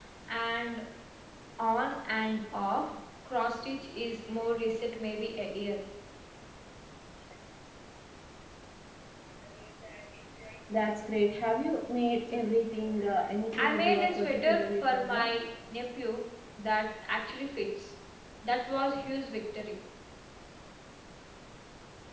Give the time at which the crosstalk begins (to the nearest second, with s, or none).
14 s